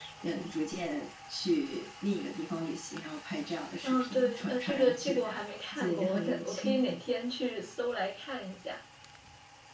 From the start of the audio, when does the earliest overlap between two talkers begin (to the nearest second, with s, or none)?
4 s